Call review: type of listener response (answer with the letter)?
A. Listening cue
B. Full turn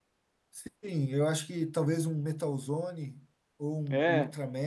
A